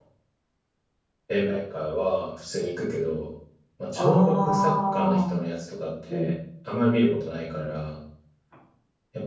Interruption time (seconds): 4.0 s

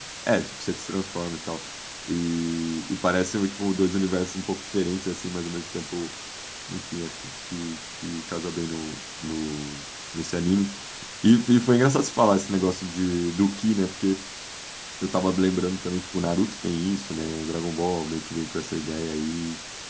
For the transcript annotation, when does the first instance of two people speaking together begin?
none

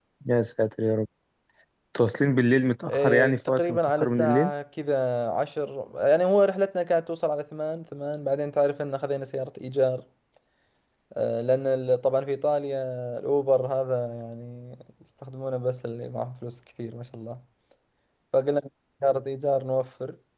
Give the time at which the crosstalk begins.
2.9 s

